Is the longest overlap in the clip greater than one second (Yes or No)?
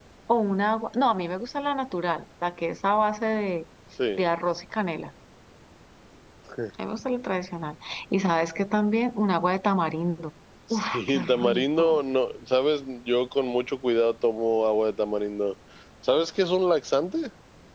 Yes